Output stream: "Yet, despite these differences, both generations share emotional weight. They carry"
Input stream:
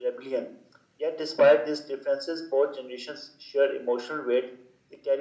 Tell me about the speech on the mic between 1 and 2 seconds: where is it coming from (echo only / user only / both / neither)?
echo only